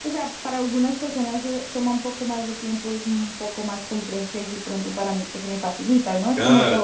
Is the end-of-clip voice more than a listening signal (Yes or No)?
No